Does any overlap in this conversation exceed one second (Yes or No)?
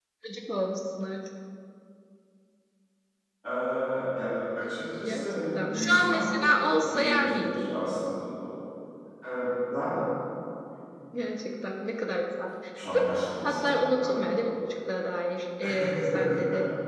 Yes